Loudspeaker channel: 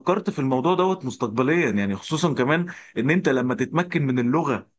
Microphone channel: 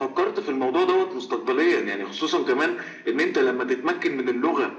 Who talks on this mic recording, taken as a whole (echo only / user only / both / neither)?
echo only